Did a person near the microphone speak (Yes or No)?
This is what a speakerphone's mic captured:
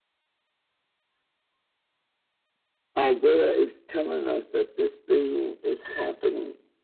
No